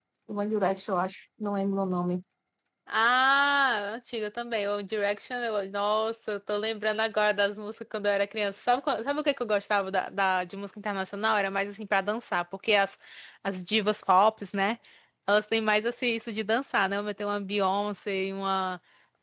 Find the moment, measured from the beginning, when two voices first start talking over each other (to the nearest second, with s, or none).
none